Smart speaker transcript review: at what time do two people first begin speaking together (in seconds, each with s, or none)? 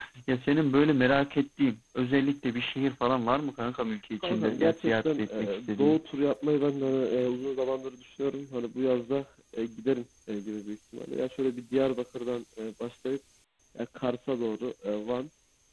4.2 s